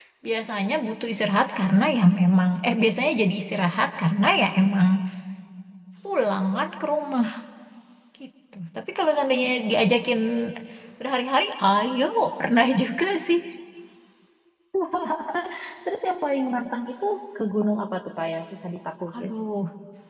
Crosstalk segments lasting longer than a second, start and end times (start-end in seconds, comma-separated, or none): none